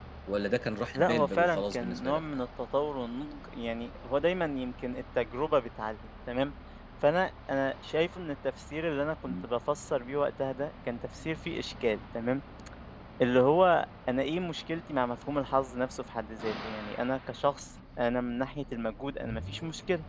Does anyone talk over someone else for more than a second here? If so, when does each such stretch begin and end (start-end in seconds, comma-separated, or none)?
0.9-2.2